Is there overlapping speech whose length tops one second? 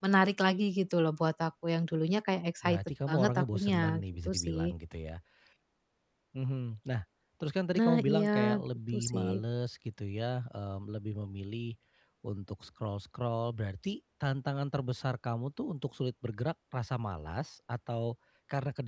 Yes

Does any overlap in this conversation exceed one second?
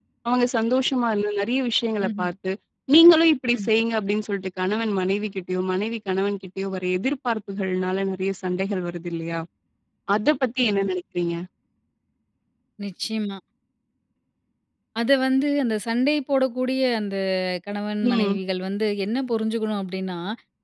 No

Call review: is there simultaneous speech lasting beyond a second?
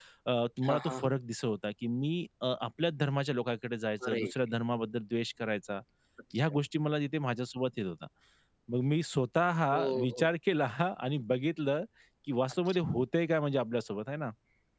No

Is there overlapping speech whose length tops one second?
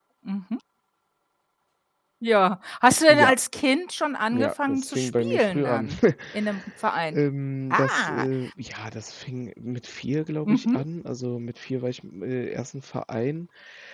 Yes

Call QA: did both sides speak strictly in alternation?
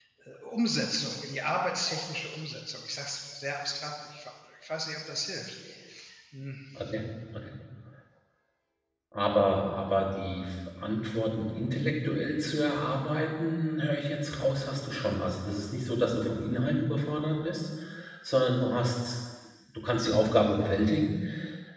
Yes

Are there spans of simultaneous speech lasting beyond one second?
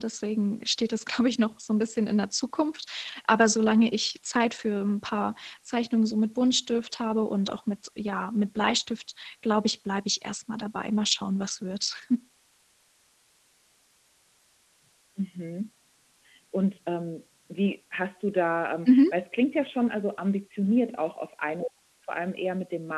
No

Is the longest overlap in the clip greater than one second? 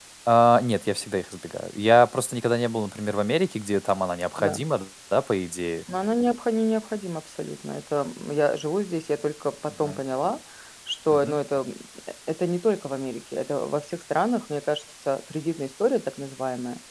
No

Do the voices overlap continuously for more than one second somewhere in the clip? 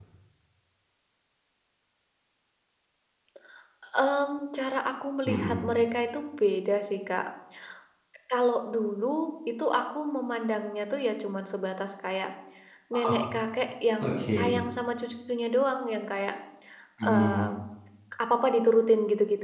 No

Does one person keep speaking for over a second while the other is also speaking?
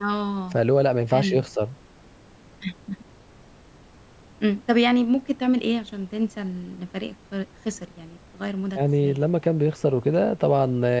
No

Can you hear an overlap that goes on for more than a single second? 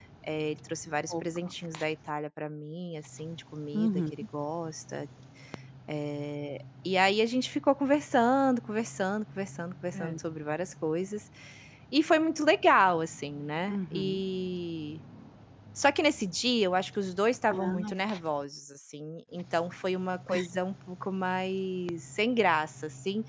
No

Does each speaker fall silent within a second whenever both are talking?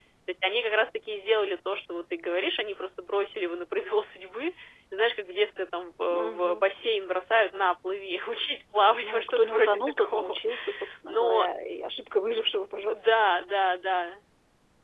No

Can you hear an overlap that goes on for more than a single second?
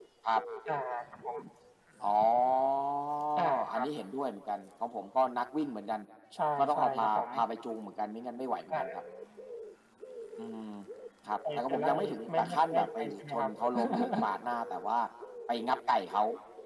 Yes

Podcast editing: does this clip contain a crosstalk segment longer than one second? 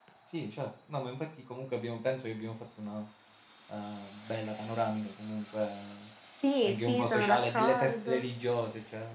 Yes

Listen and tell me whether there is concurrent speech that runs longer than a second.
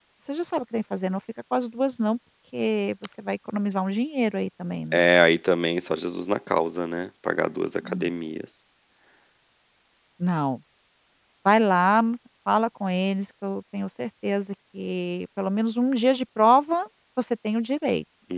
No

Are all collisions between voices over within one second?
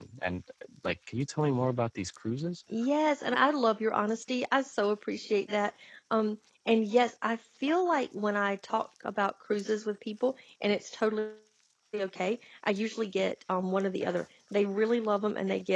Yes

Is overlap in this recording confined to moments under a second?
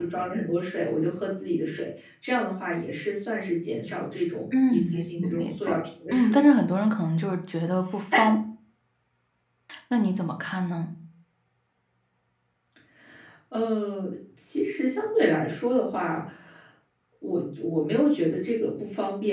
No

